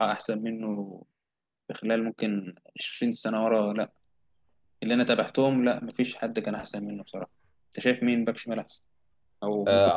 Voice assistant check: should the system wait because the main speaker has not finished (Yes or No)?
No